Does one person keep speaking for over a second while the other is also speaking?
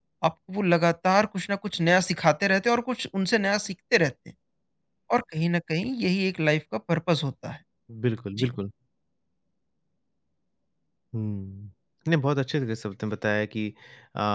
No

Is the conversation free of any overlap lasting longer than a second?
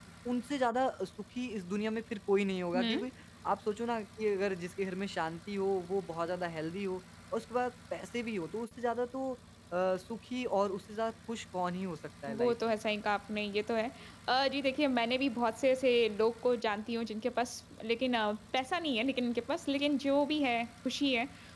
Yes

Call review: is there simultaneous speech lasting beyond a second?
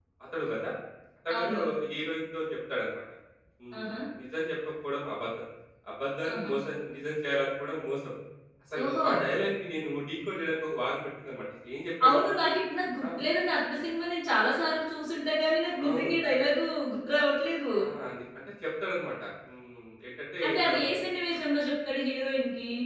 No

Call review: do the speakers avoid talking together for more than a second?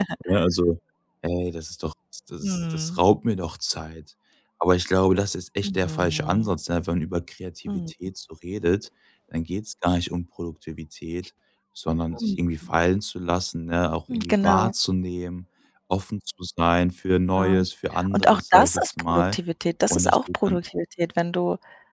No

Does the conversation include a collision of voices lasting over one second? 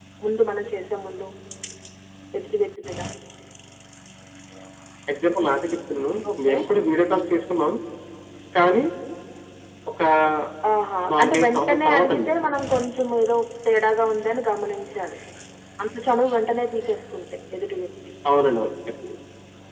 Yes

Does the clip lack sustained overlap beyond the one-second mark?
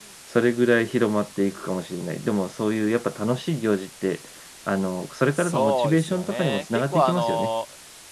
No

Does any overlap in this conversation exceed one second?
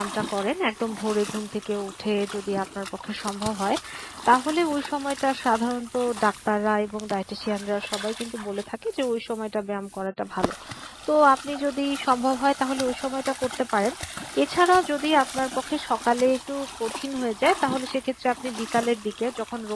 No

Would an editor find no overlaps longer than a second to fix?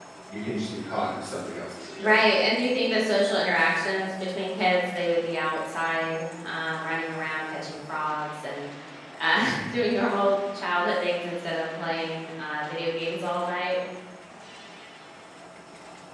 Yes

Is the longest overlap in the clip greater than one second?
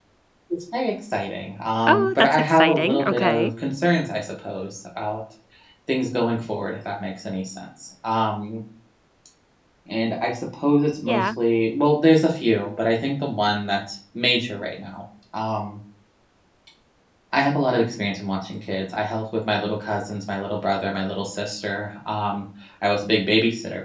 Yes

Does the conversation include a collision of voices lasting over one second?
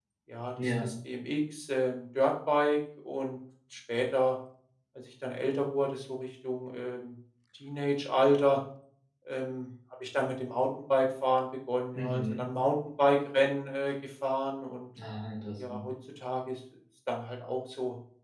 No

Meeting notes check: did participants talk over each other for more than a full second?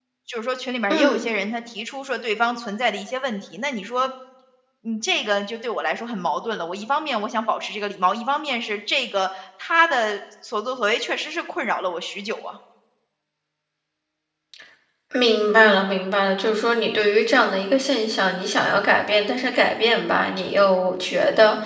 No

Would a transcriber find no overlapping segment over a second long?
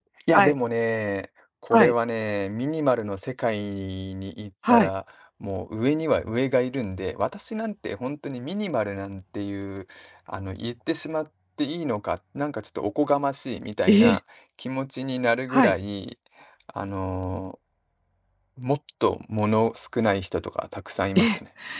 Yes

